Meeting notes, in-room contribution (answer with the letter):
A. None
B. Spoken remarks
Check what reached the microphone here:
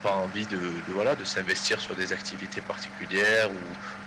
A